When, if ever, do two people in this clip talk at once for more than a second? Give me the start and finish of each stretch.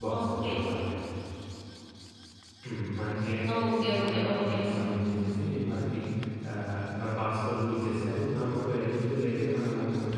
3.6-5.1

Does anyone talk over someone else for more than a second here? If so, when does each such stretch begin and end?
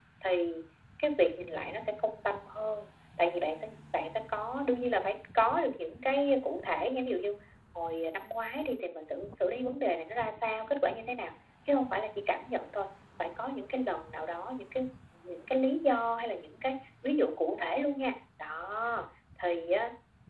none

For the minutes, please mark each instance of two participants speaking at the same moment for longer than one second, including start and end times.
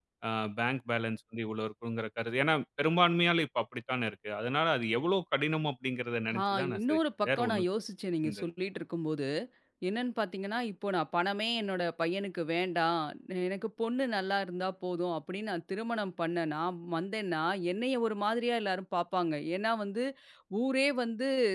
6.4-7.7

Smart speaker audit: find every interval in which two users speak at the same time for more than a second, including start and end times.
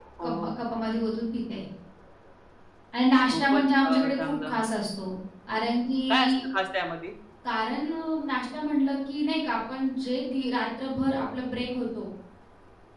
3.3-4.6

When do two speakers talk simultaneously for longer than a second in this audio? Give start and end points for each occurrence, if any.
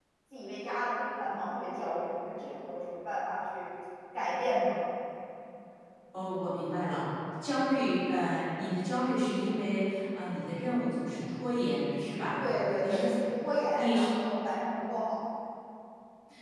none

